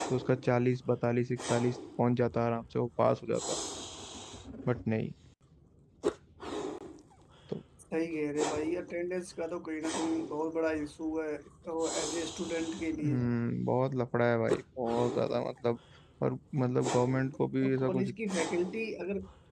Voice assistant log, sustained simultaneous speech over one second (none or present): none